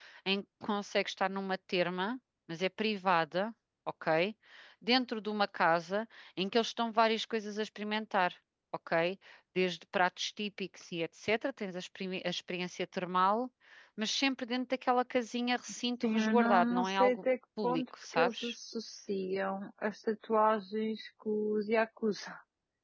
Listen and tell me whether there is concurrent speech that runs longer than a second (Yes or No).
Yes